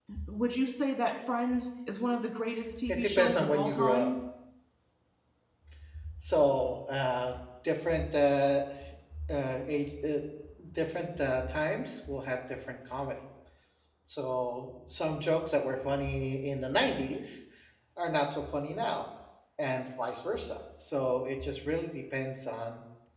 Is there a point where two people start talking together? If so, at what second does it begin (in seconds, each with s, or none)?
2.9 s